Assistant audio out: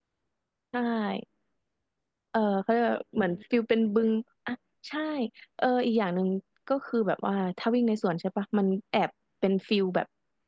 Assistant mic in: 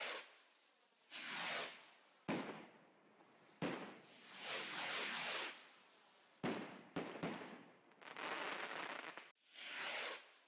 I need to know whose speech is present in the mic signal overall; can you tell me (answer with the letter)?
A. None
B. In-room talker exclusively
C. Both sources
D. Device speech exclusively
A